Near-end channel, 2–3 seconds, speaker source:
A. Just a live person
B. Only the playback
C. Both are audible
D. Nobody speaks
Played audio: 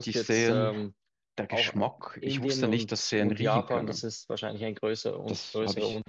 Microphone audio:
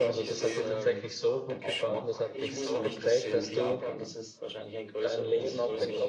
C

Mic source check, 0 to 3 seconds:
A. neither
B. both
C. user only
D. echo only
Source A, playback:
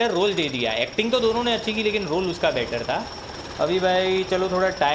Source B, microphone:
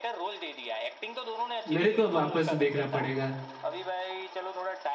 B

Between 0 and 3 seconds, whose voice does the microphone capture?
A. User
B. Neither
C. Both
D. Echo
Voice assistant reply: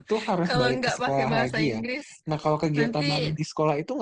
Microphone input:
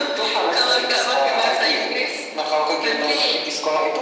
D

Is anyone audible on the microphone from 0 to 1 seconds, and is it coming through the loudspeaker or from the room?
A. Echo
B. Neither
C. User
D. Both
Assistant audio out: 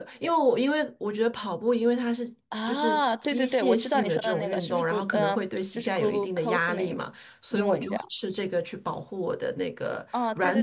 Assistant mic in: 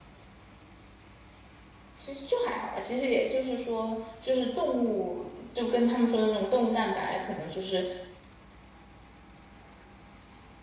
B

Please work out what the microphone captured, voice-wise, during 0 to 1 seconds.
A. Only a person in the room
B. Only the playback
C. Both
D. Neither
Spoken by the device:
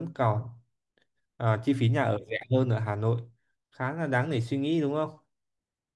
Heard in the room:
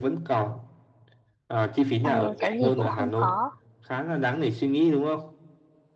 B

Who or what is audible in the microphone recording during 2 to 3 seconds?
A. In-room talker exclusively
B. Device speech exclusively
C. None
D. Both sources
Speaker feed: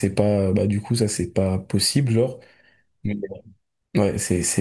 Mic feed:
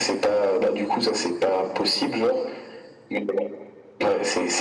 B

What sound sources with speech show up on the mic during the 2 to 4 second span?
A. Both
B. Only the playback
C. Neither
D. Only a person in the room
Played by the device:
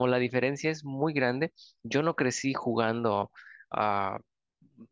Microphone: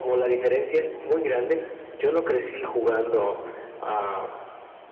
B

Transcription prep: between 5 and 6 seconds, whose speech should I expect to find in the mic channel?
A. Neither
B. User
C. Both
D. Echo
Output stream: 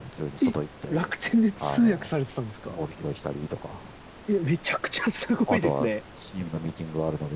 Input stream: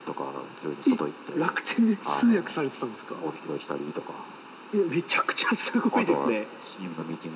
D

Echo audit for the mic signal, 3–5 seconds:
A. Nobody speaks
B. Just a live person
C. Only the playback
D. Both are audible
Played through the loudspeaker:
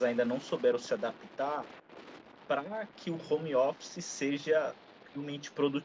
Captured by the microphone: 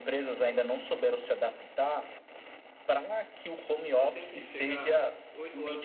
D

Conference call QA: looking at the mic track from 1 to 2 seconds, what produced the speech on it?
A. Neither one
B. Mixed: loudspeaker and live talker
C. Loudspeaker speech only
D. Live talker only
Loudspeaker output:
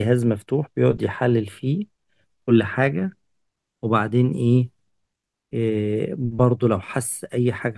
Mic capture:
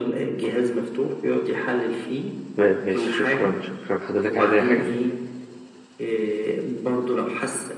C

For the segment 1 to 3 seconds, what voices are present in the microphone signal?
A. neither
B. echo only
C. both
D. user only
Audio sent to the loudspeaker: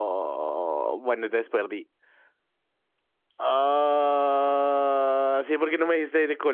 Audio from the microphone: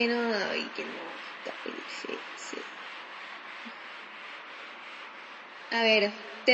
D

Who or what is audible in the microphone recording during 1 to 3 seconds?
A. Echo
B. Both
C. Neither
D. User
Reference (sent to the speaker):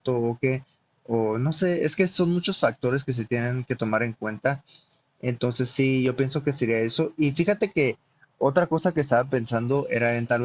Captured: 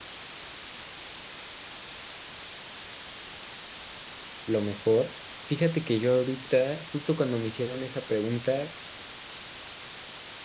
C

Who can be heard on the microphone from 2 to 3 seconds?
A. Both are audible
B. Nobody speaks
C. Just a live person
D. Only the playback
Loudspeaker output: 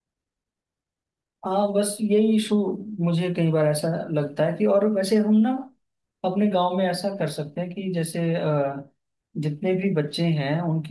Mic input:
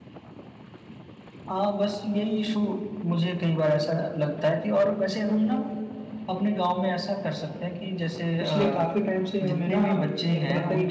D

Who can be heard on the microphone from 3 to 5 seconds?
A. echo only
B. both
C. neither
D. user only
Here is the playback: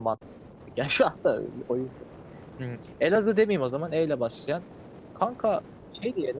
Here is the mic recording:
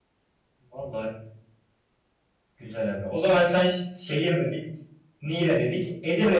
D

